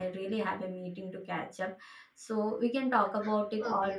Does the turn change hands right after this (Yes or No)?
Yes